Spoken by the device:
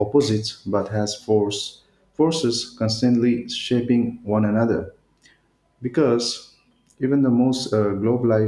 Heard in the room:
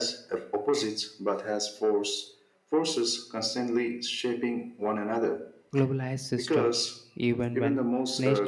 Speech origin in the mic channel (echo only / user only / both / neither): both